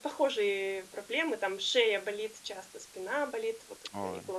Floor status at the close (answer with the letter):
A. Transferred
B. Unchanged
B